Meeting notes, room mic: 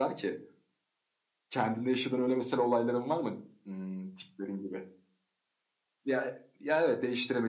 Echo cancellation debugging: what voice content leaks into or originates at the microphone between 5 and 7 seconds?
echo only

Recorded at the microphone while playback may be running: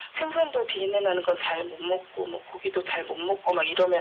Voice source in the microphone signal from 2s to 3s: echo only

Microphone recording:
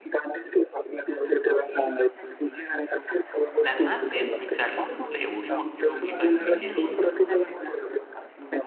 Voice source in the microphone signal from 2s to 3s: echo only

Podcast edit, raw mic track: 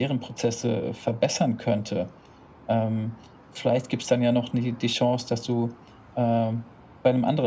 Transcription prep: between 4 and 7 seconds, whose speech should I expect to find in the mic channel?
echo only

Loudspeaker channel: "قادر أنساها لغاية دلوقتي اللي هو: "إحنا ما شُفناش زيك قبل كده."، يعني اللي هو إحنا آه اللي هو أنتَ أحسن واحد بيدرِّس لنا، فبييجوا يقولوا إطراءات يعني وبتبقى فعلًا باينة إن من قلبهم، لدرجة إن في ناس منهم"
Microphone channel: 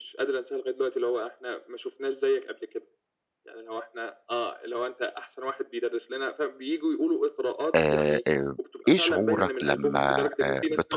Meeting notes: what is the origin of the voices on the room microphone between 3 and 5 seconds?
echo only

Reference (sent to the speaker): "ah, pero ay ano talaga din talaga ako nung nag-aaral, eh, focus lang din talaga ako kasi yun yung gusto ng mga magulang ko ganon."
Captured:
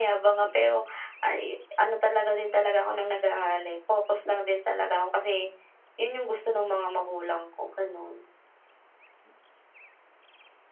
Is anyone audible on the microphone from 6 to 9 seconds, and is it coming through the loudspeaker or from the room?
echo only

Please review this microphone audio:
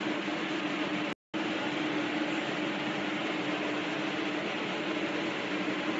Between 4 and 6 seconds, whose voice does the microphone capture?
neither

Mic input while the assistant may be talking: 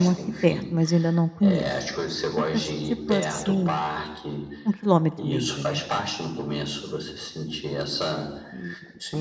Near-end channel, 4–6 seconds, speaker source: both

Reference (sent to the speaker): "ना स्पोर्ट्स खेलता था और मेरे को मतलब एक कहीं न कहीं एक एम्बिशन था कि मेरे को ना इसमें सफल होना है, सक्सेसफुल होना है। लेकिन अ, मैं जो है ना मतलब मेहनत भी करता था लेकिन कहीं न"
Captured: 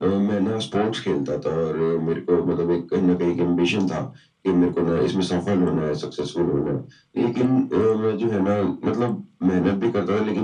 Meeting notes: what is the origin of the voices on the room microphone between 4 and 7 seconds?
echo only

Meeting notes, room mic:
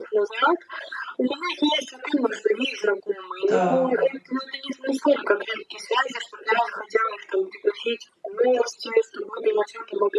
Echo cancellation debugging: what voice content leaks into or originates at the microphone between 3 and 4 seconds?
both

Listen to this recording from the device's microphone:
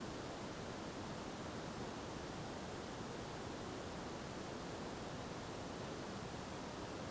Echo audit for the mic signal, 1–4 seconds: neither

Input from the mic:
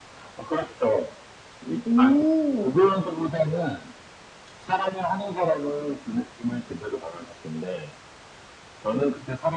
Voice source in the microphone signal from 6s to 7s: echo only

